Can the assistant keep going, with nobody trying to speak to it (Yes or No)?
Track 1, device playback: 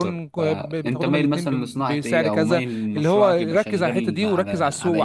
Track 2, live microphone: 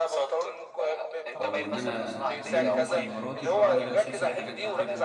No